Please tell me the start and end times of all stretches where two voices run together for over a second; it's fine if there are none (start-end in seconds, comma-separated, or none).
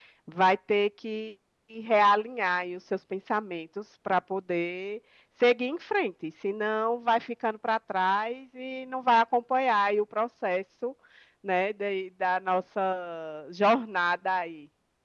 none